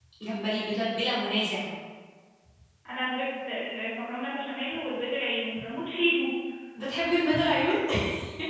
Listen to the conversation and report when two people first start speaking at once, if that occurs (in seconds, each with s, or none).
none